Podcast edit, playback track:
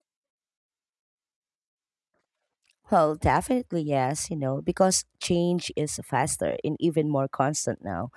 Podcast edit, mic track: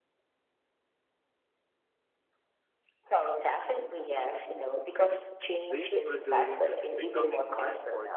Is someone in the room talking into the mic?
Yes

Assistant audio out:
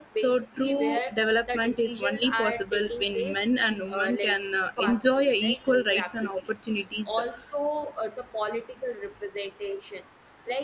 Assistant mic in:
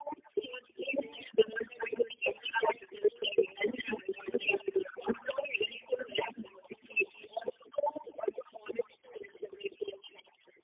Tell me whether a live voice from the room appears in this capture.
No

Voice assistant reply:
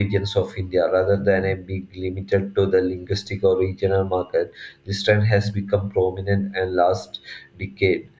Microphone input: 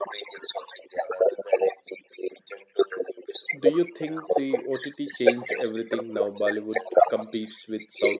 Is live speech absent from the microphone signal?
No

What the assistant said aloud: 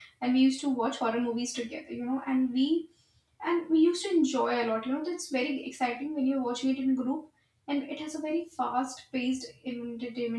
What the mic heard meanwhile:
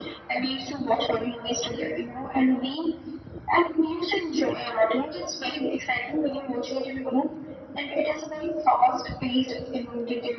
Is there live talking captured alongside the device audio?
No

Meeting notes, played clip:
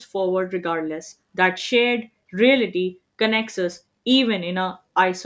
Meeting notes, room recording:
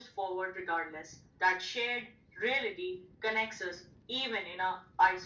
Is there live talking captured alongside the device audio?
No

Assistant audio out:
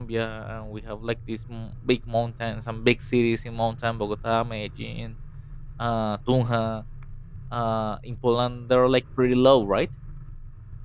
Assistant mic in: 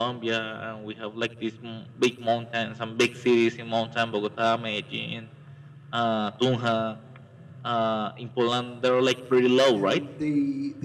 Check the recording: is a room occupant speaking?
Yes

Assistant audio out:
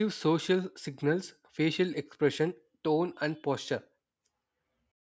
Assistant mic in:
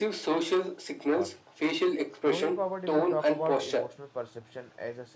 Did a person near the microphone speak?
Yes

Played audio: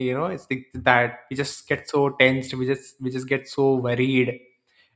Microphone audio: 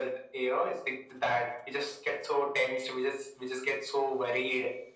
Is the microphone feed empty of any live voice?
Yes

